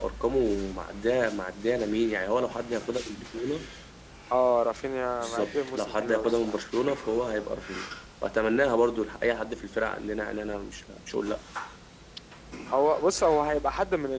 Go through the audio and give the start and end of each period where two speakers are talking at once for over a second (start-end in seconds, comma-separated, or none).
5.2-6.6